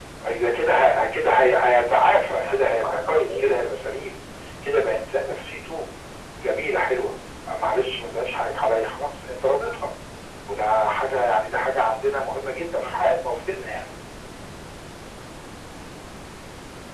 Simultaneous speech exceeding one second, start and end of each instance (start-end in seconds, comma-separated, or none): 2.4-3.6